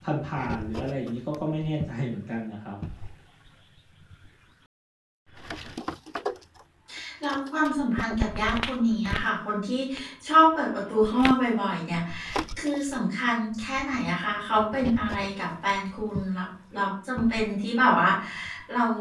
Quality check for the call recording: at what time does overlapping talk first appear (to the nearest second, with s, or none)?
none